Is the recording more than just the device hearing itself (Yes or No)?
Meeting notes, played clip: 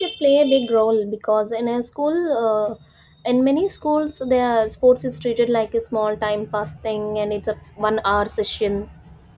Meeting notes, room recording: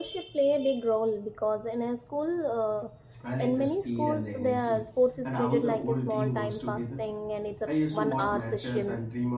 Yes